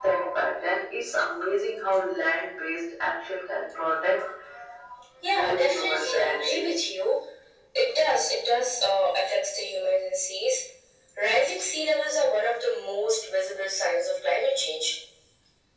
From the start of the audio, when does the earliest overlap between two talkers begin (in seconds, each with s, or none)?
5.3 s